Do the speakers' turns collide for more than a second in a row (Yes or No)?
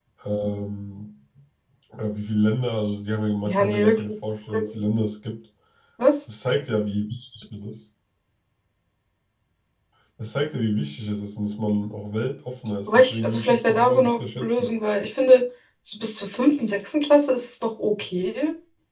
Yes